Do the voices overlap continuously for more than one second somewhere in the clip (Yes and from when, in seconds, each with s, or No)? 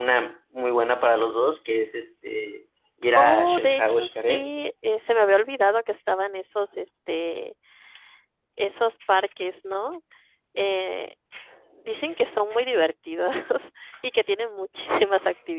Yes, from 3.2 s